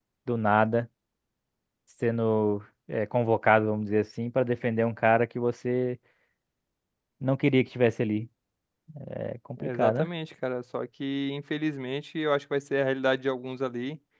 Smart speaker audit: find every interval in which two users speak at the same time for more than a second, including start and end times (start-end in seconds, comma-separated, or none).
none